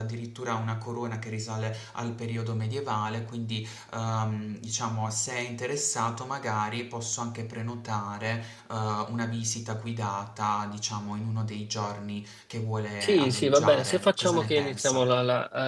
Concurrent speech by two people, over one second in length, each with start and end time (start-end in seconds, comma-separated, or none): 13.0-15.1